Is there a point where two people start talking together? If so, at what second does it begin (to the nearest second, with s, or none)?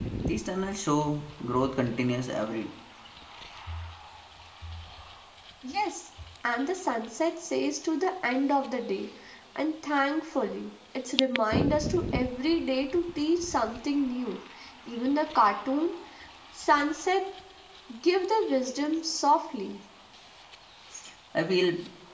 none